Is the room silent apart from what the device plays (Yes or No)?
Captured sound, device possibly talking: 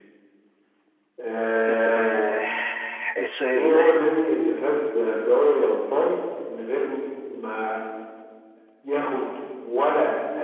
No